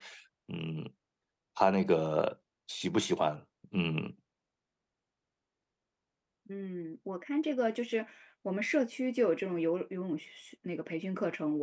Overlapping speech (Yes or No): No